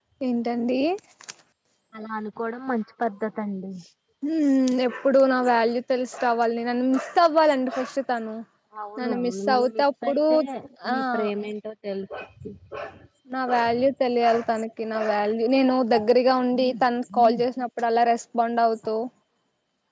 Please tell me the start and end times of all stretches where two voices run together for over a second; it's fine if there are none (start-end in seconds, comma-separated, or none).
9.0-10.2